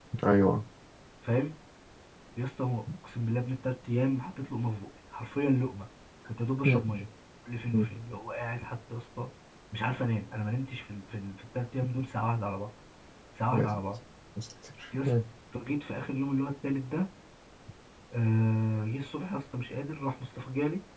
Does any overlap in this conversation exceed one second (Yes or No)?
No